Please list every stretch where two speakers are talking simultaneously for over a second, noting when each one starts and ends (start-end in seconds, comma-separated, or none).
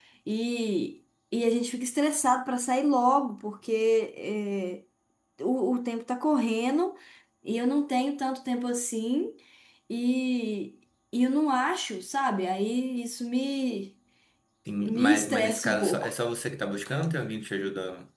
14.8-16.1